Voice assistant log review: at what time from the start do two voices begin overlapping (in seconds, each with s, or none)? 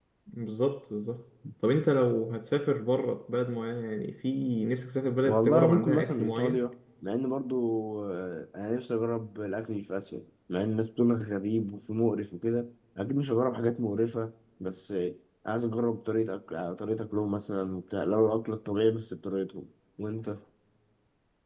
5.2 s